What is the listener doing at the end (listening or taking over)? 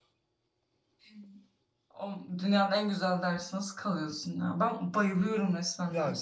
taking over